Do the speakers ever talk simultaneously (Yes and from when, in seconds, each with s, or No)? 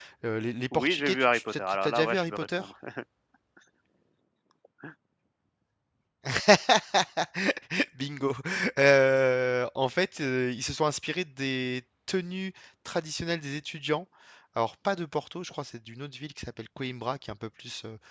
Yes, from 0.7 s